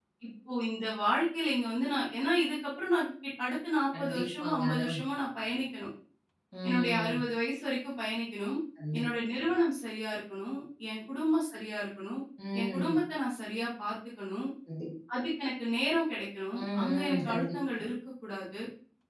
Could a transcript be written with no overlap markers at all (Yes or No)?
No